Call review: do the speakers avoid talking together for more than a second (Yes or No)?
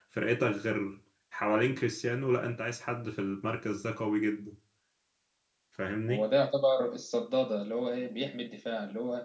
Yes